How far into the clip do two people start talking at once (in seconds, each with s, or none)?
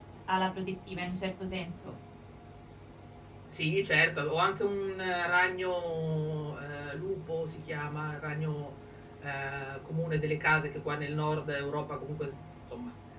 none